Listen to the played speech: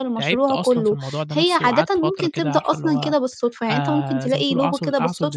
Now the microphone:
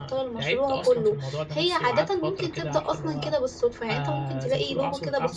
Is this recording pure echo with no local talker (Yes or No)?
Yes